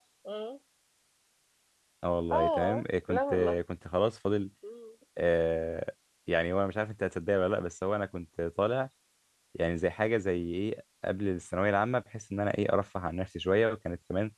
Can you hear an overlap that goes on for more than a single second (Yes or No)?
Yes